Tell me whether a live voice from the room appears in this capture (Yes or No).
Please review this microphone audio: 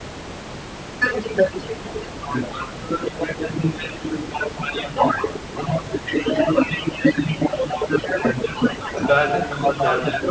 Yes